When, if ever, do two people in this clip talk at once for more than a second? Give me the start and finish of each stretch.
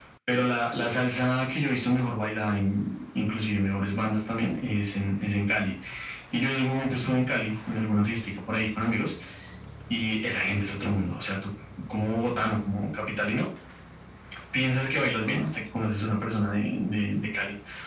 none

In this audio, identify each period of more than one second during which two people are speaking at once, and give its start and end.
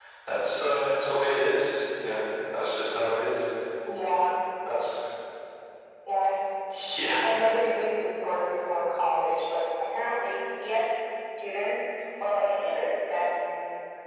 none

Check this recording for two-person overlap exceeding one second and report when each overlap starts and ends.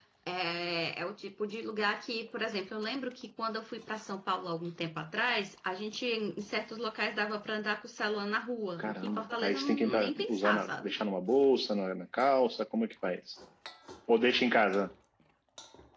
8.8-10.9

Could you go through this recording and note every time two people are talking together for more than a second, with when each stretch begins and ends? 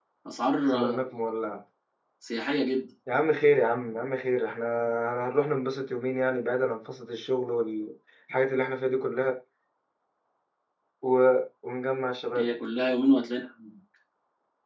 none

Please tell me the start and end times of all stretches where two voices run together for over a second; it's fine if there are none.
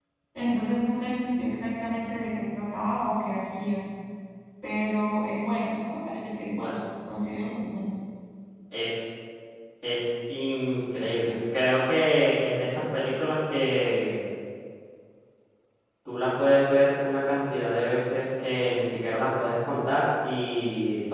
none

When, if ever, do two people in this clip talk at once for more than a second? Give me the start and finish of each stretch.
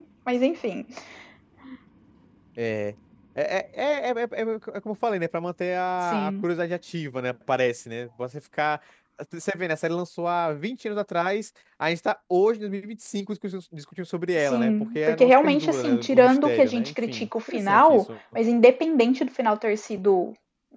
14.5-18.0

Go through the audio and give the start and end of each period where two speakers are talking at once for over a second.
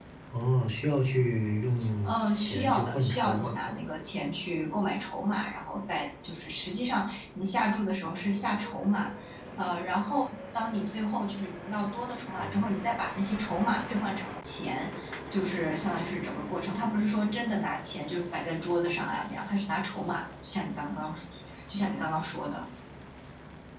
2.0-3.8

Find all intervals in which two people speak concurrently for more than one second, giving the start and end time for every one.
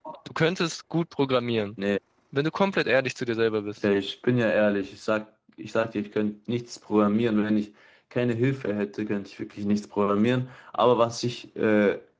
none

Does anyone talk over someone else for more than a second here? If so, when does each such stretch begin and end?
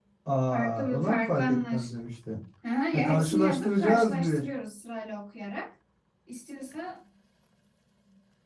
0.5-1.8, 2.9-4.4

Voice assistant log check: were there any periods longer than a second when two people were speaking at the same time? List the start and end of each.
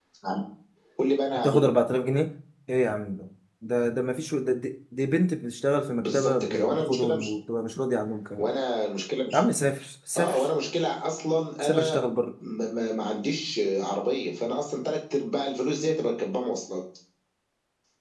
6.0-7.3

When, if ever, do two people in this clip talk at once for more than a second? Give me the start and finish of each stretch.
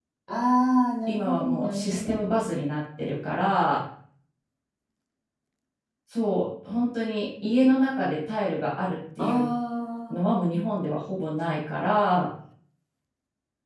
1.1-2.3

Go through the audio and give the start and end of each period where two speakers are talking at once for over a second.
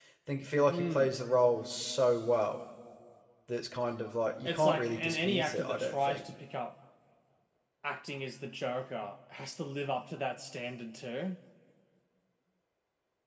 4.5-6.3

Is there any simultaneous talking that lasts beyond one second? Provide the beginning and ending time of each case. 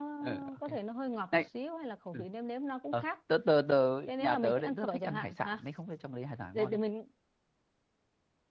4.2-5.6

